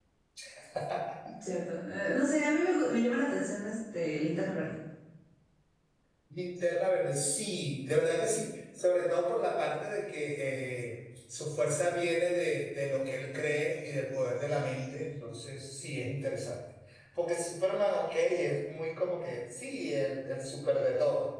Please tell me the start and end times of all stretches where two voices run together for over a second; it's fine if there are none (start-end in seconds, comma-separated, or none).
none